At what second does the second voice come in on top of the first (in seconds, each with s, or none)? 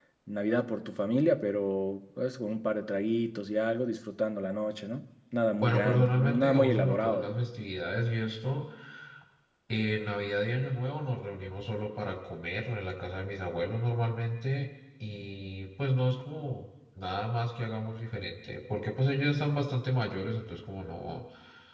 5.6 s